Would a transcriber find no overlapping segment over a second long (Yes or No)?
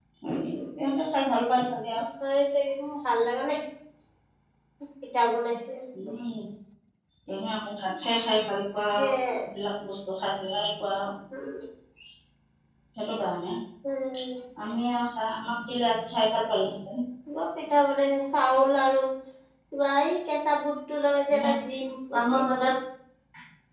Yes